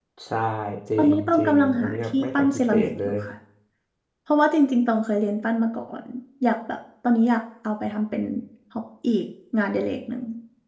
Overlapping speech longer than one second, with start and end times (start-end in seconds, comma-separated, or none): 1.0-3.1